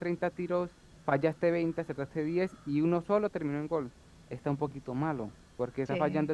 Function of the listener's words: listening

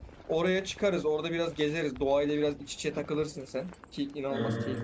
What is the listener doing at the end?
listening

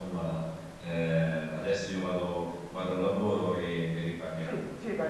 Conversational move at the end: taking over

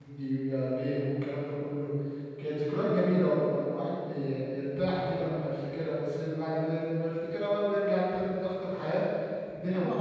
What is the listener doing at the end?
taking over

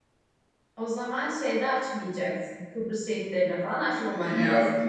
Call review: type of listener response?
taking over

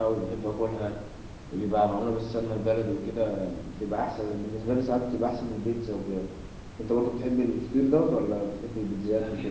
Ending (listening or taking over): taking over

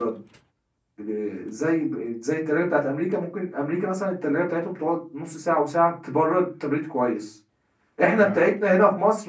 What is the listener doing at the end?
listening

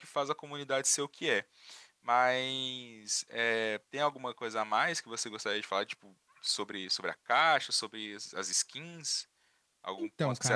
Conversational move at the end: taking over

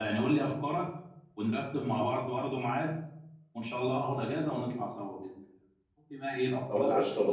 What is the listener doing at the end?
taking over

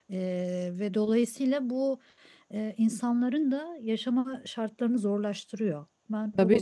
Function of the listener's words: taking over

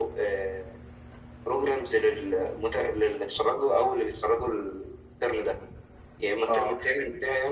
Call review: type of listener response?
listening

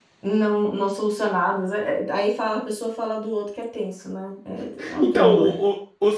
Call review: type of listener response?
taking over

